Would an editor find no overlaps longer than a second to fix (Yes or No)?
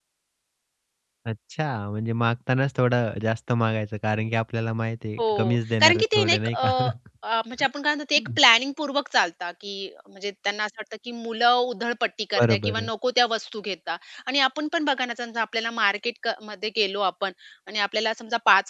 No